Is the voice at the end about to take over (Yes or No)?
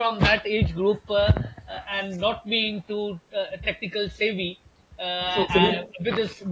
No